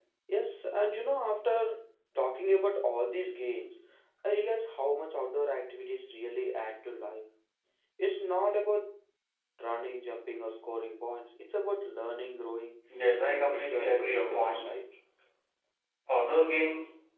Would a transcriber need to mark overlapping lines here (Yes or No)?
Yes